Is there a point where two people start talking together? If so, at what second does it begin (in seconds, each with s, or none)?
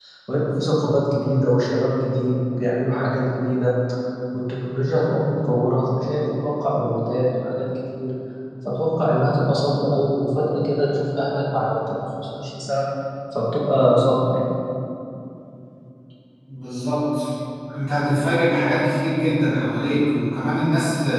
none